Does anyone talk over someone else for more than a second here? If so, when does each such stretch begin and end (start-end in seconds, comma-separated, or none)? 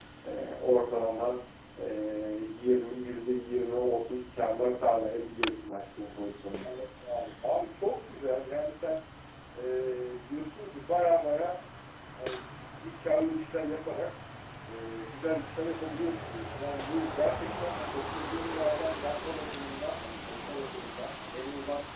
none